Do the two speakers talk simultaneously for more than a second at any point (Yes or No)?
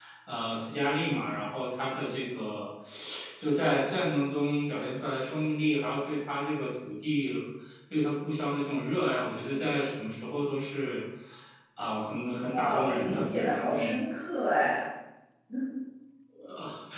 Yes